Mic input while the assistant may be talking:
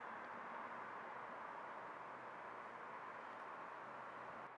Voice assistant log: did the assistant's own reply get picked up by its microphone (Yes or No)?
No